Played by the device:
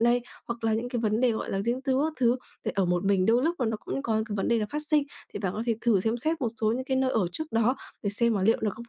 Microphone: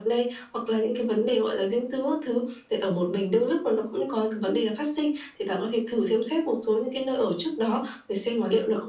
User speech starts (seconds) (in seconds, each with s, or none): none